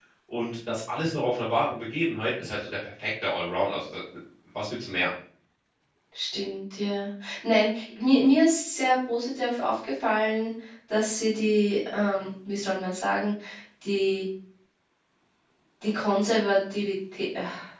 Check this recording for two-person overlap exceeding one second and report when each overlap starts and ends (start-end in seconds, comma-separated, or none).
none